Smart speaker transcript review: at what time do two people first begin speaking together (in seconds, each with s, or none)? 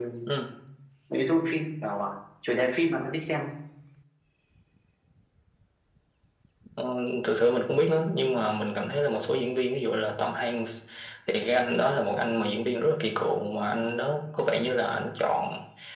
none